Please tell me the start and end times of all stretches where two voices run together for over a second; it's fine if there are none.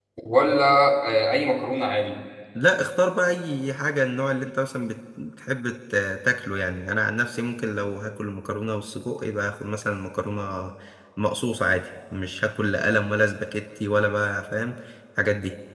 none

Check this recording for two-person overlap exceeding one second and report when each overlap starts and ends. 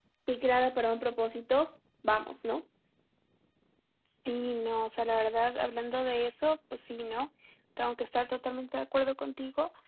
none

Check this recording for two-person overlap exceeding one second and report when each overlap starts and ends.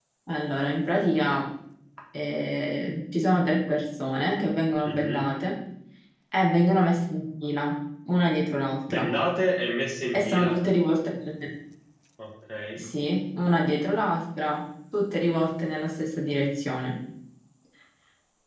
none

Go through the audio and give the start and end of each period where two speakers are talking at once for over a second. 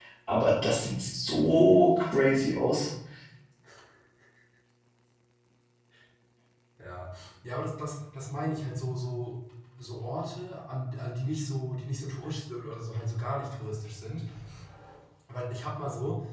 none

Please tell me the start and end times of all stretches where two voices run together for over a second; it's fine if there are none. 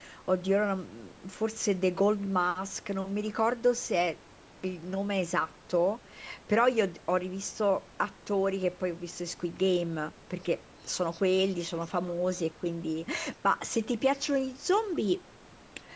none

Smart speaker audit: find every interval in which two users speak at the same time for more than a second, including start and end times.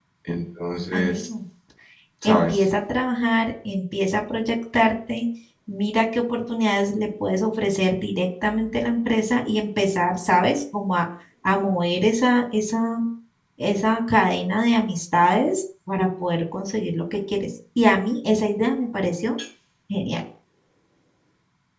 none

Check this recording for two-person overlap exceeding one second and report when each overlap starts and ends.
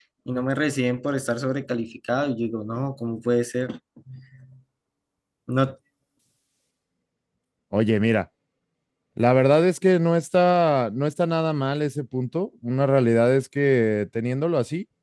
none

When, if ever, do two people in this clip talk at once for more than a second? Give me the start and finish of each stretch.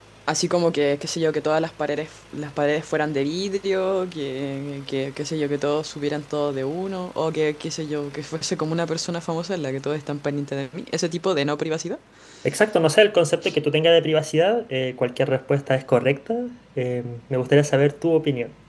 none

